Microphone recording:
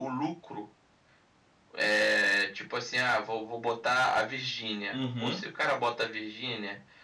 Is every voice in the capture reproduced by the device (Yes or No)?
No